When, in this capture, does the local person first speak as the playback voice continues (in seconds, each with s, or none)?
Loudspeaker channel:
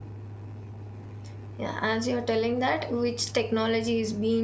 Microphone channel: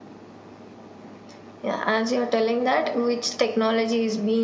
none